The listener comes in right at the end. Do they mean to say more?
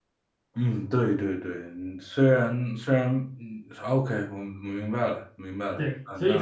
Yes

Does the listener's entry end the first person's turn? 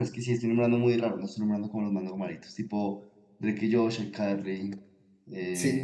Yes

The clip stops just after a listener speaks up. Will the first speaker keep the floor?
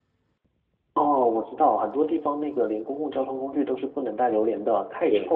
No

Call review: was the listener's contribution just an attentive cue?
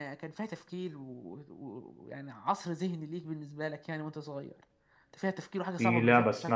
No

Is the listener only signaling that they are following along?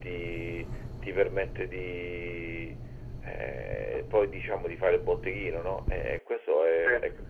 Yes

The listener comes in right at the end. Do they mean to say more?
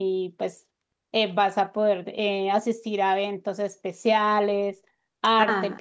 Yes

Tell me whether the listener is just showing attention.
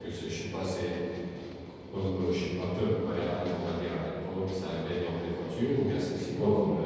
No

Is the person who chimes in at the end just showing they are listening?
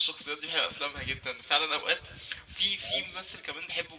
Yes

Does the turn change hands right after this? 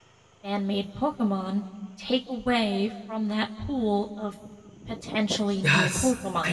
Yes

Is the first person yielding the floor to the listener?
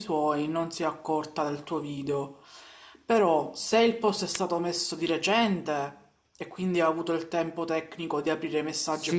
Yes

